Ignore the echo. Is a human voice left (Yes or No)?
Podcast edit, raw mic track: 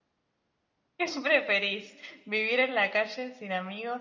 Yes